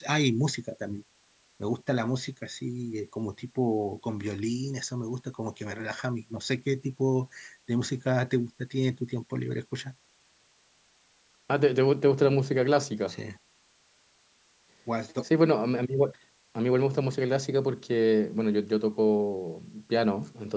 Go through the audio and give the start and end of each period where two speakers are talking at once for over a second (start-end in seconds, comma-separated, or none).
none